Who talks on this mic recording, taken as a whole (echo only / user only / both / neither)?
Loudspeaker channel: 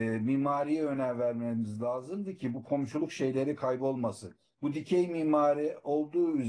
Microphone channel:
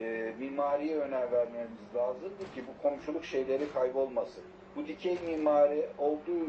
echo only